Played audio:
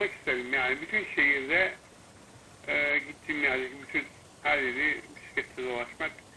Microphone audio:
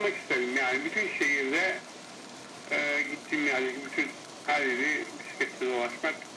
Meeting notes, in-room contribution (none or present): none